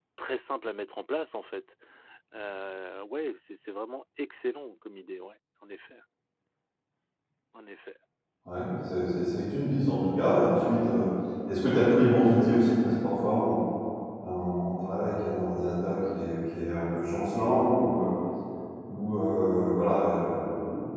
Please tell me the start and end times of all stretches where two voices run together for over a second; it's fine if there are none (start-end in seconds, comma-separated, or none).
none